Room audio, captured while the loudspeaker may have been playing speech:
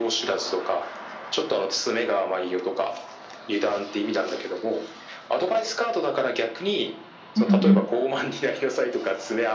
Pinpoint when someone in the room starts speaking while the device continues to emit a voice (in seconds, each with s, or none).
7.4 s